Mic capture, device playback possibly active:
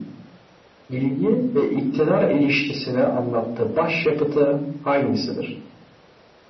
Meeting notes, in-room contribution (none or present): none